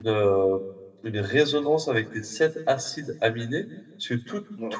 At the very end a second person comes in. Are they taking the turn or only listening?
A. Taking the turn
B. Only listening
B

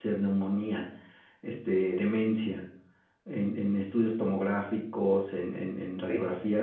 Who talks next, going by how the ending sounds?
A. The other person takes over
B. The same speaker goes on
B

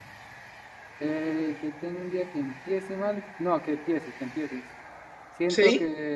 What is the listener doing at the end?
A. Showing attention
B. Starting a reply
A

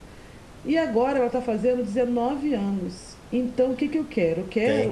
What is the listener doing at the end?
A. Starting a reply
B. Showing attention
A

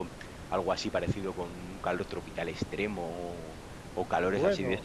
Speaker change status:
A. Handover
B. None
B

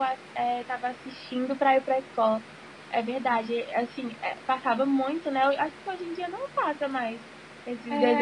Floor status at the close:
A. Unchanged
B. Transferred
B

